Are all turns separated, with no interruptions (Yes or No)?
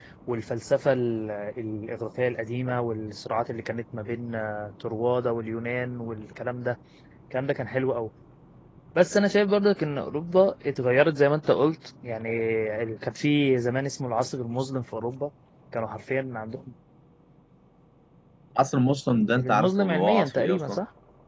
No